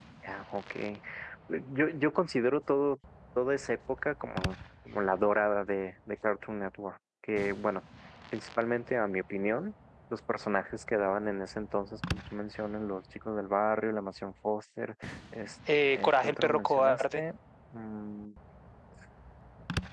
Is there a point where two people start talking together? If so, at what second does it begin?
15.7 s

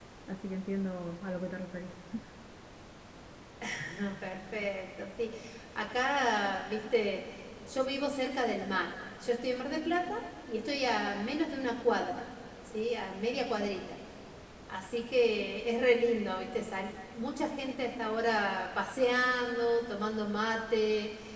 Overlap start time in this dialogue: none

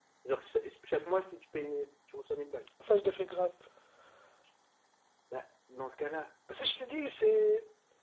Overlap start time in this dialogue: none

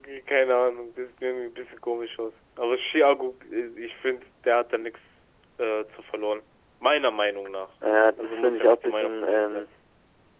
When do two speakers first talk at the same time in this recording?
8.2 s

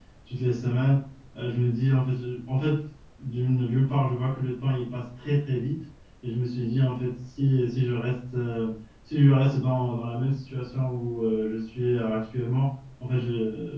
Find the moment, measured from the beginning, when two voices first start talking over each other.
none

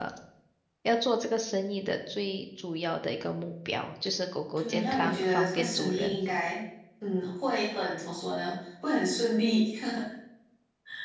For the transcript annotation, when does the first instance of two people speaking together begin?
4.6 s

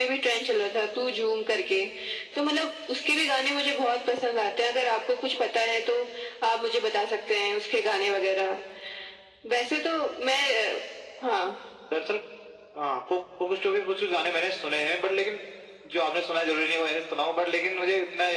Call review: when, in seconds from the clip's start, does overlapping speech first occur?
none

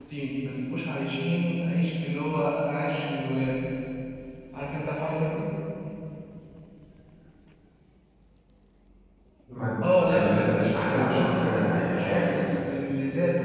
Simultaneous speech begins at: 9.9 s

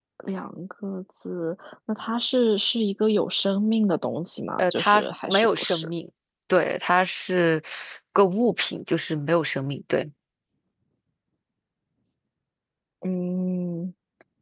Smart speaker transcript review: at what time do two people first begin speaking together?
4.6 s

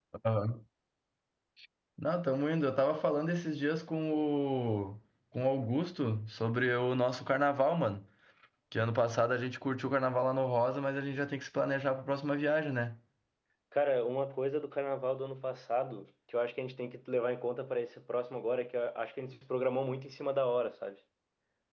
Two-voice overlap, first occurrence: none

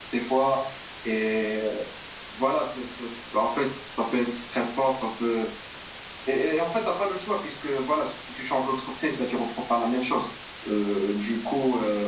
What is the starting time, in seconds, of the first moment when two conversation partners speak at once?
none

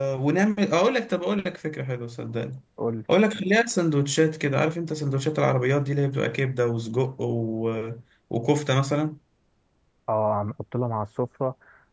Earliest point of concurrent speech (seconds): none

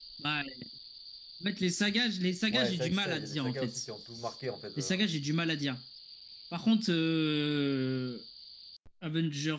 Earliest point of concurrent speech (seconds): 2.5 s

